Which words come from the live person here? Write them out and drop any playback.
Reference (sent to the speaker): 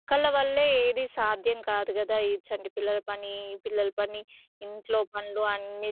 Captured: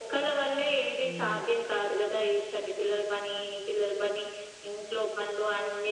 హ్మ్.

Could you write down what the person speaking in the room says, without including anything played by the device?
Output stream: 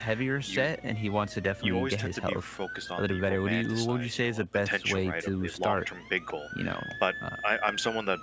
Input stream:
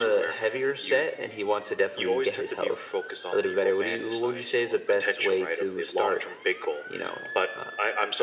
none

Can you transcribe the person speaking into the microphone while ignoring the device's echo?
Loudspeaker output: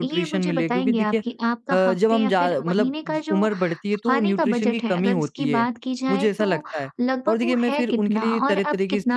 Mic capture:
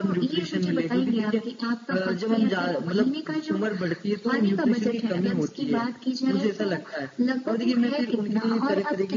none

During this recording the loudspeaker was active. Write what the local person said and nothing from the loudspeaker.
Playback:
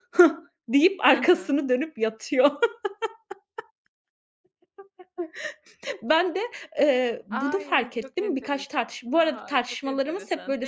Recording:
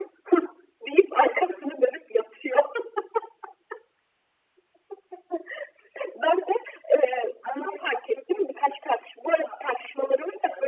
none

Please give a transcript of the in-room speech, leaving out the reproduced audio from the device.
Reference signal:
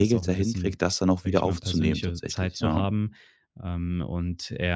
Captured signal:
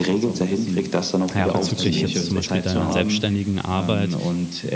ja, bezüglich jetzt zum Beispiel deiner selbstständigen Arbeit,

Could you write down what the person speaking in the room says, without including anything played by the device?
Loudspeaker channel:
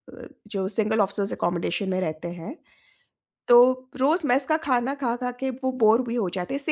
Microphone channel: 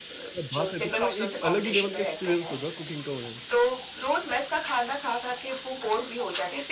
क्या बात है! तब तो एक अलग ही लेवल का एक्सपीरियंस होगा कुकिंग का उन्हें।

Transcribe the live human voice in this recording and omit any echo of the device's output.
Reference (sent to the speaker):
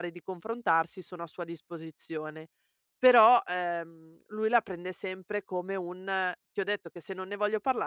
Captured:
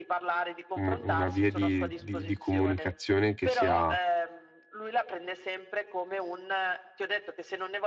una via di di di comunicazione che sia,

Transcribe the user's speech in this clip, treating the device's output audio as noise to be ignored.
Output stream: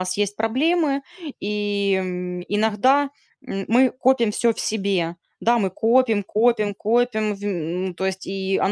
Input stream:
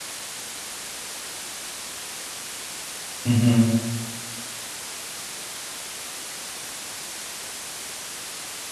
Мгм.

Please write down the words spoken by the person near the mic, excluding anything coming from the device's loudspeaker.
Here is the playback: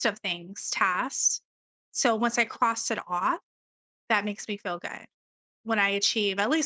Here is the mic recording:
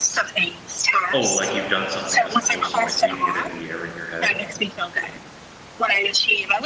"Oh, like, you've done something," as opposed to, like, leaving it in the air in your head.

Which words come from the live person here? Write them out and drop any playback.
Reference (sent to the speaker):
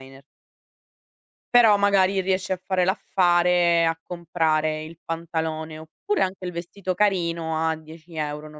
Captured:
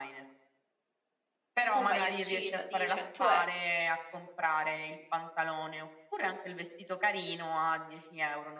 un maglioncino di 100€

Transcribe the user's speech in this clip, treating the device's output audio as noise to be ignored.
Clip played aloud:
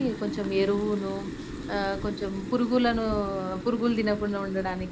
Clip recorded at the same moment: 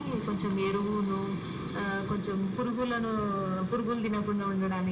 none

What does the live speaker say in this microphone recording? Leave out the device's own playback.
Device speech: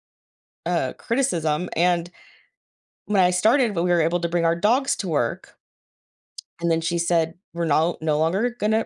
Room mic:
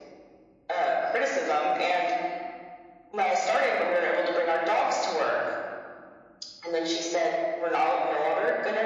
none

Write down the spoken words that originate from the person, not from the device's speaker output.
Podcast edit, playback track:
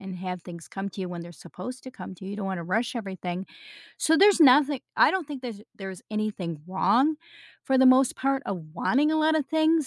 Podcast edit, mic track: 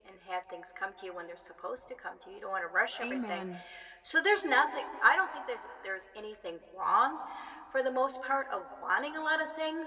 Amen.

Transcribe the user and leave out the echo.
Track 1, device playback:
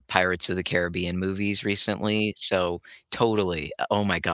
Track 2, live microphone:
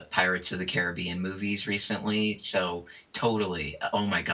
none

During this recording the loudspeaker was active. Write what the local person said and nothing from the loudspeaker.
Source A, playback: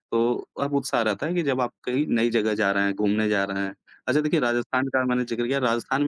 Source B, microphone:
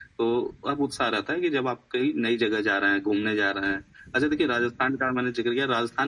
none

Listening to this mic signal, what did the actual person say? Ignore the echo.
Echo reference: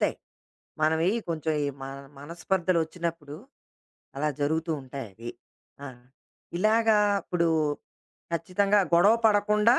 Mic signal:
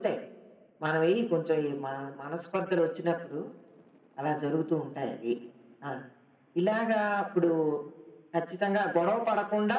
none

